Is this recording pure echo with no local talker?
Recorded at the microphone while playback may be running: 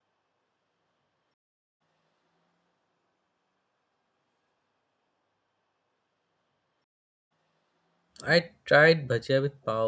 No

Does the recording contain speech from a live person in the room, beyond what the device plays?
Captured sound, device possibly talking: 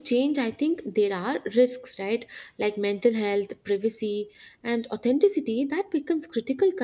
Yes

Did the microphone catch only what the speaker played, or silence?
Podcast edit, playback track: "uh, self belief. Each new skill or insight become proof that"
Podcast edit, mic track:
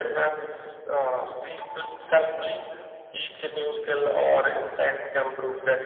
Yes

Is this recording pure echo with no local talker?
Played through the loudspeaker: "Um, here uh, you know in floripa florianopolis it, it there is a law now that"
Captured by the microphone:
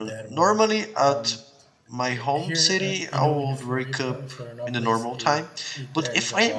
No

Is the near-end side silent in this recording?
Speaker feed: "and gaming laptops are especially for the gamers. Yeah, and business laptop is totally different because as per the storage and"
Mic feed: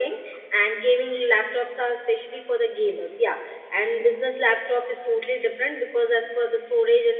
Yes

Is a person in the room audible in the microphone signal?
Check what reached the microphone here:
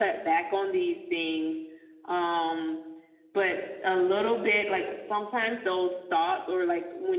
No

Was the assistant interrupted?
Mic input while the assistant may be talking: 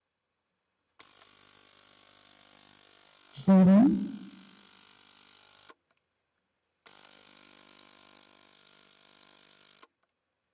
Yes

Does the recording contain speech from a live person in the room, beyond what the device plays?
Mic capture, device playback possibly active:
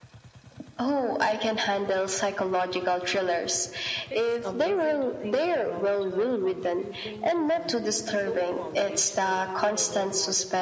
Yes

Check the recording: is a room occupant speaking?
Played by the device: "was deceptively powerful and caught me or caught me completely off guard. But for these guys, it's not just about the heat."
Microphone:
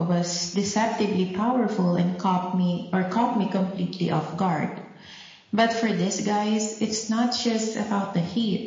No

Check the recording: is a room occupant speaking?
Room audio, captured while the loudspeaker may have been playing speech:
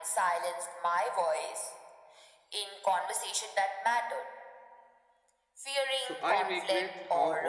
Yes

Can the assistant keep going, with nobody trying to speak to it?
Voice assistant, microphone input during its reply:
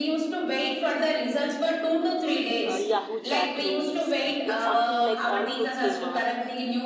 No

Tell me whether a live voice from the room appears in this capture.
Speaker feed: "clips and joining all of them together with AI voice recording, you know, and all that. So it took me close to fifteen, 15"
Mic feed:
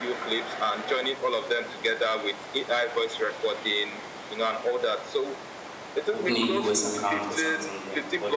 Yes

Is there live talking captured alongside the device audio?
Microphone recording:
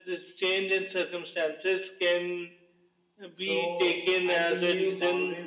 Yes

